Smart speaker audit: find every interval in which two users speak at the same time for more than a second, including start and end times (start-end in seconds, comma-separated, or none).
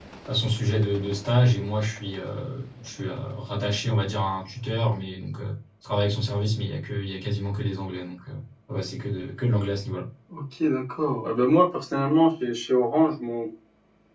none